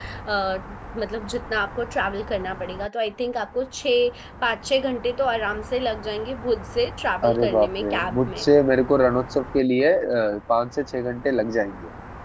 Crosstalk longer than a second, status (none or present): present